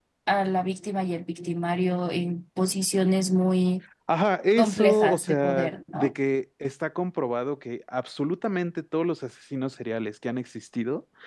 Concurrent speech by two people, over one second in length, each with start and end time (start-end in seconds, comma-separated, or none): 4.6-6.1